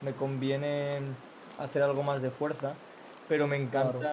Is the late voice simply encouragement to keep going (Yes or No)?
Yes